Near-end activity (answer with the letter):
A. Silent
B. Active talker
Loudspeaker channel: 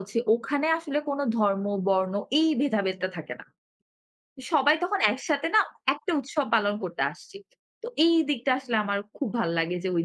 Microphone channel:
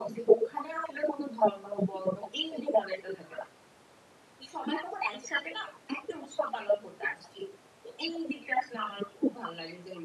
A